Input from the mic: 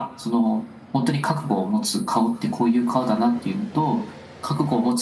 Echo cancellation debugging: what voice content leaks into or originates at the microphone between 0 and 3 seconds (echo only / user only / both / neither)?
echo only